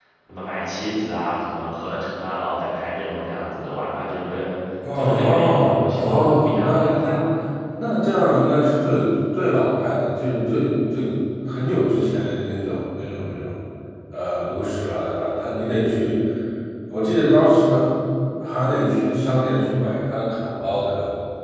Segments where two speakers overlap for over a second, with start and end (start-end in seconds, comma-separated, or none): 4.9-7.1